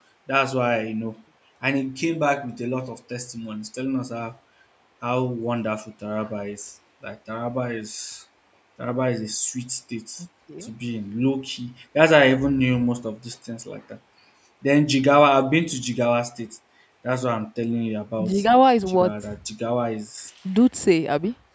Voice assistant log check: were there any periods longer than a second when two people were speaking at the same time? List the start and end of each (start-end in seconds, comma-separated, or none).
none